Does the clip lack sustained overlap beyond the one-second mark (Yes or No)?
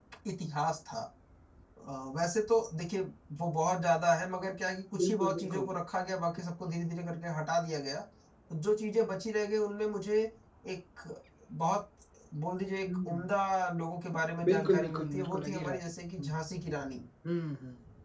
No